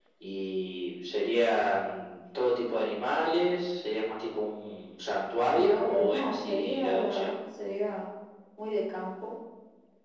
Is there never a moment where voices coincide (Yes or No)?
No